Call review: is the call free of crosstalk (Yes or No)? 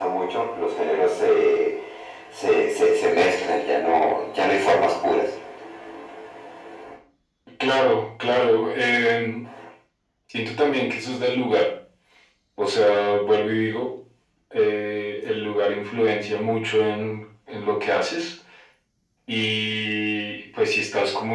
Yes